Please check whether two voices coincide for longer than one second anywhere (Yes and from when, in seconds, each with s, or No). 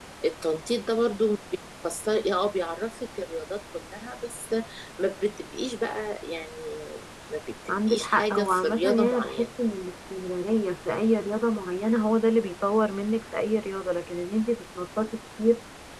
Yes, from 7.9 s